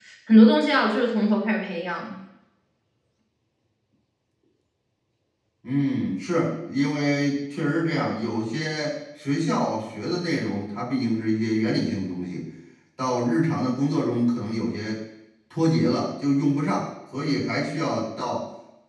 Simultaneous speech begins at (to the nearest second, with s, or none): none